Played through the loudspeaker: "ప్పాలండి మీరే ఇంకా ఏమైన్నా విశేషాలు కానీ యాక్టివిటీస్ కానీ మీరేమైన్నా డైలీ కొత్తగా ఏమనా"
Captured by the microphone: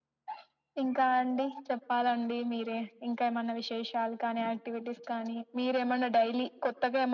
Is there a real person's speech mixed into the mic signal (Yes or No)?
No